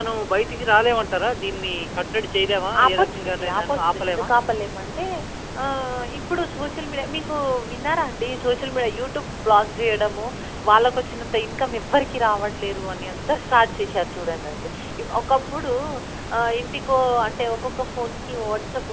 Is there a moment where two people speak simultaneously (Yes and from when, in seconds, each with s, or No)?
Yes, from 2.7 s